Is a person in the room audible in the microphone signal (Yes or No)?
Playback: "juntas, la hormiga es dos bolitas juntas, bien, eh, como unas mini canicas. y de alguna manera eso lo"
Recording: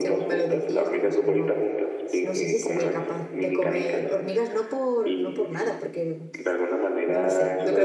Yes